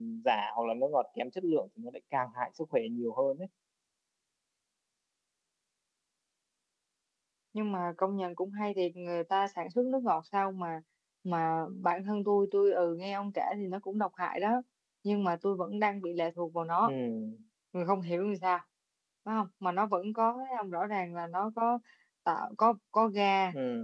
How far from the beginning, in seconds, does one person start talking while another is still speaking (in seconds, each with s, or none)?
none